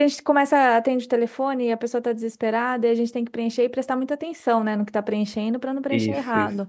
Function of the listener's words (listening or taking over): listening